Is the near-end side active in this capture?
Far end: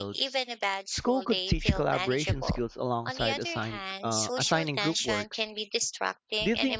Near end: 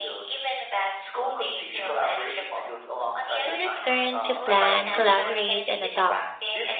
Yes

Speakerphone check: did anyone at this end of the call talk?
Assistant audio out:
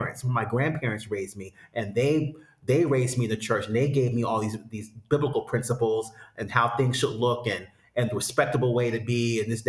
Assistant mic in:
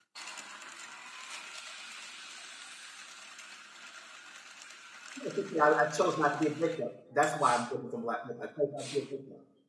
Yes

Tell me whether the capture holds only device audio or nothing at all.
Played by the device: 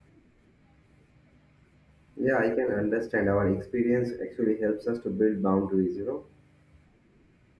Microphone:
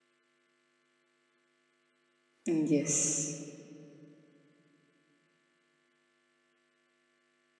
No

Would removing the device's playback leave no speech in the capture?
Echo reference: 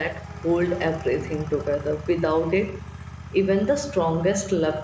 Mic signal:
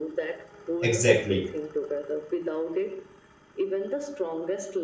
No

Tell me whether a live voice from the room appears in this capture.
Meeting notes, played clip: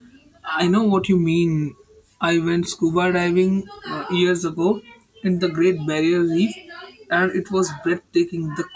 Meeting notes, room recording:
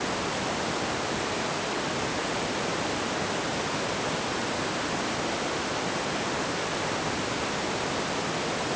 No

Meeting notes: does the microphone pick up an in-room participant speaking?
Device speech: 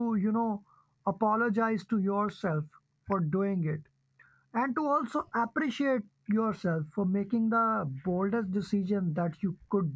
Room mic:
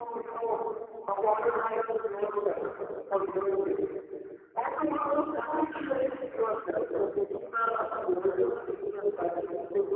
No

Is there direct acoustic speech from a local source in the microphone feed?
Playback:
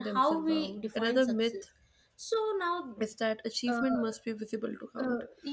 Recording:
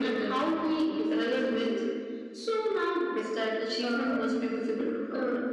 No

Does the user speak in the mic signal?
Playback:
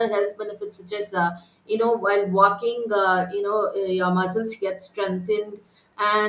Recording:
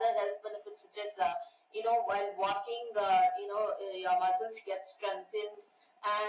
No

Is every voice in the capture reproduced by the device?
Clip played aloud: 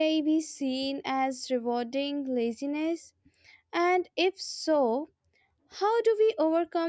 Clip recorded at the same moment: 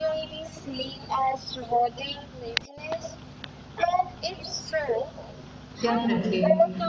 No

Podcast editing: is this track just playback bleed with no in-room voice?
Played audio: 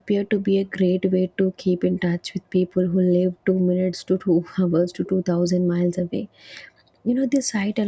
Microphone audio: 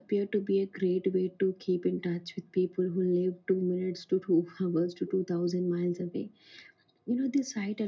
Yes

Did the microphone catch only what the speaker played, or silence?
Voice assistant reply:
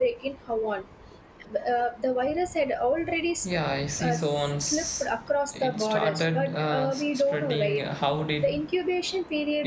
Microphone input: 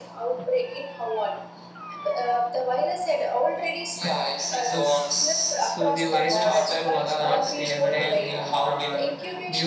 No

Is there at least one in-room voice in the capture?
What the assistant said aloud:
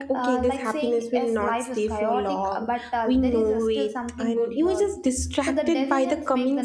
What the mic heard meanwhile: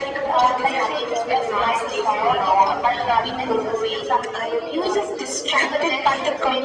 Yes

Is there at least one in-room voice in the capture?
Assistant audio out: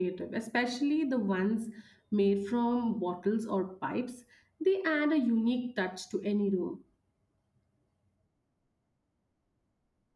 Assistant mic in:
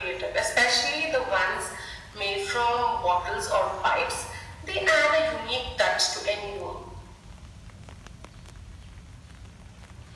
No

